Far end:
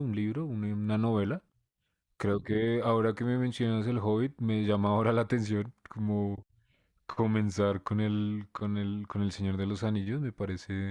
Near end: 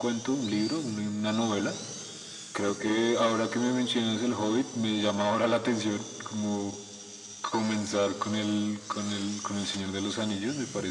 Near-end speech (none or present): none